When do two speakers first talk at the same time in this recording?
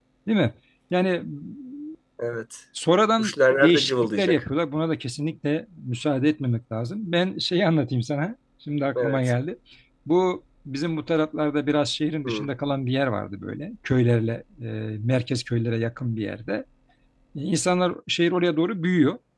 3.2 s

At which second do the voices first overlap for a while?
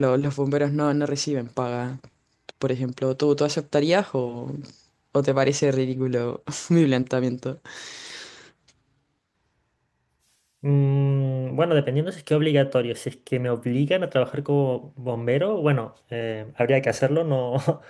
none

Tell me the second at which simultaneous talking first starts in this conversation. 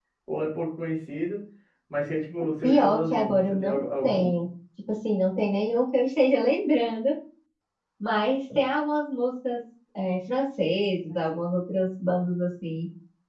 2.6 s

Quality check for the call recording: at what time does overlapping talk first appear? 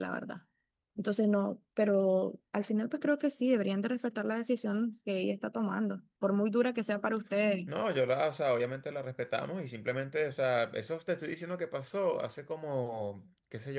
none

